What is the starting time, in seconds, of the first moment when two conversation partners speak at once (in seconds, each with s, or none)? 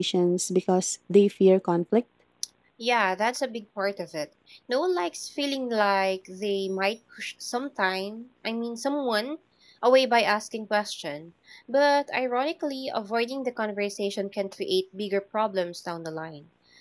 none